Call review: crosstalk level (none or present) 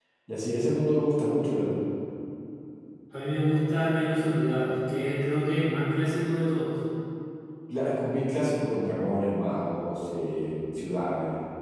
none